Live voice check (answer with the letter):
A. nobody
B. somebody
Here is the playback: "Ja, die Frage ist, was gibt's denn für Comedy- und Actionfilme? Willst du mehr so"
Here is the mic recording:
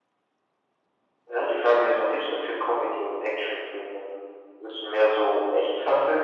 A